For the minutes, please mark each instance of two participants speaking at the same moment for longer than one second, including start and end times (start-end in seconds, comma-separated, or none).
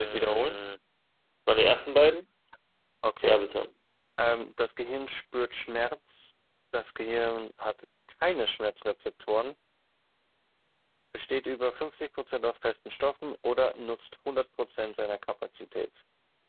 none